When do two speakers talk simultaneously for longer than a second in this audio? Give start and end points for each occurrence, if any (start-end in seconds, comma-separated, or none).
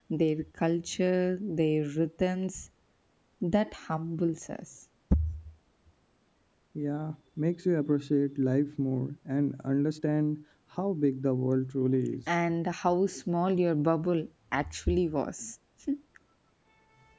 none